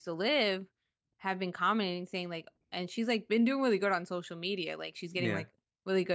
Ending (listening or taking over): listening